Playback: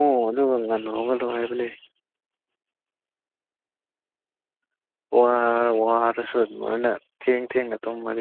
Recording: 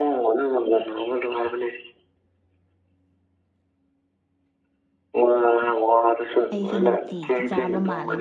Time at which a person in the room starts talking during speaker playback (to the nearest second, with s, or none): 7 s